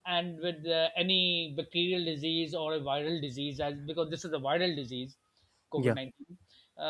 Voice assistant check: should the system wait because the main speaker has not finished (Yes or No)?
Yes